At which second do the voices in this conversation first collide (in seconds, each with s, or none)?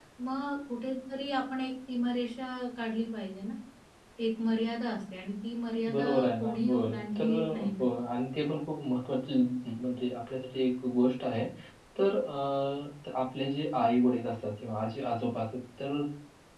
5.9 s